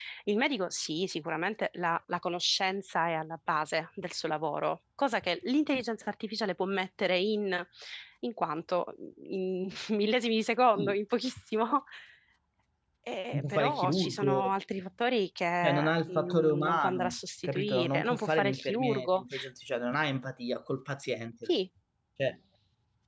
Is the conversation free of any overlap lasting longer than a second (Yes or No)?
No